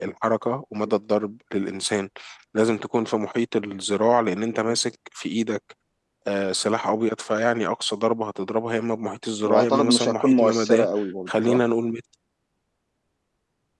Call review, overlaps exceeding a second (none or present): present